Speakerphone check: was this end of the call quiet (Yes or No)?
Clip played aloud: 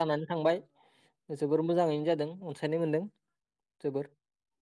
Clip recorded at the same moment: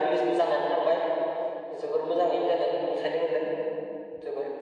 Yes